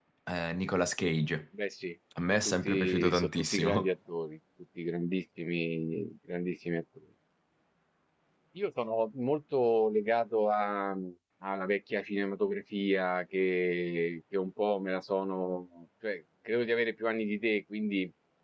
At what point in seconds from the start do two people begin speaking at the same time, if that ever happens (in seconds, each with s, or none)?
2.4 s